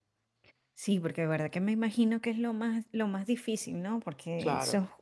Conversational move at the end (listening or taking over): listening